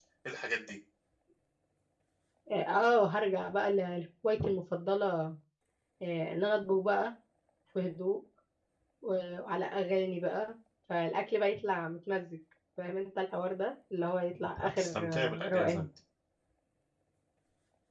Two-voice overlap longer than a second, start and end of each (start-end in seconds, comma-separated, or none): 14.6-15.8